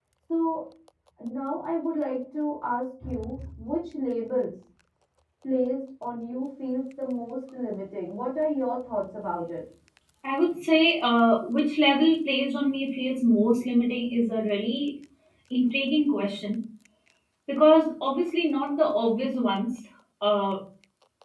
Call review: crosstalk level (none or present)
none